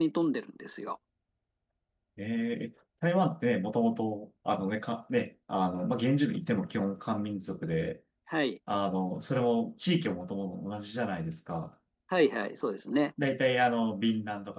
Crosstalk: none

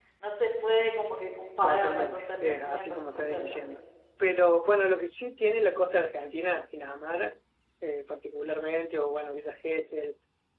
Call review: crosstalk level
present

